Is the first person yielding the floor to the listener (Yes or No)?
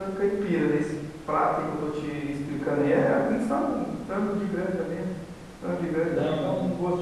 No